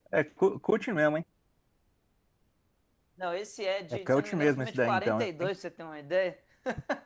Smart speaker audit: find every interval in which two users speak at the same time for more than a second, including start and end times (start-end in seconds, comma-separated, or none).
4.1-5.5